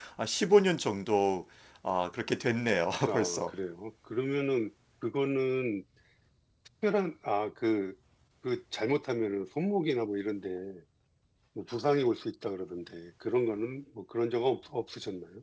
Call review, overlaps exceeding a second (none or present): none